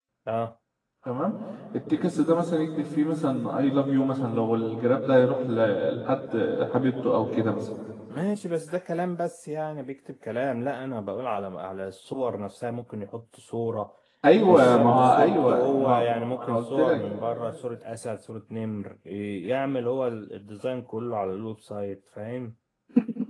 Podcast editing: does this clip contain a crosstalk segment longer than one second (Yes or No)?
Yes